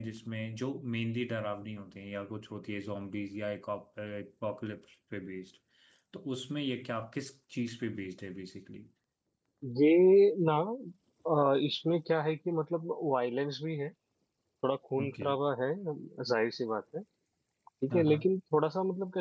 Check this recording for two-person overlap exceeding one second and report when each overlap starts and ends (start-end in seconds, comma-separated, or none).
none